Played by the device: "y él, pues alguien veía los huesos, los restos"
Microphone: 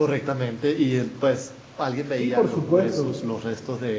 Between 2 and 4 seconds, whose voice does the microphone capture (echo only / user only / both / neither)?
both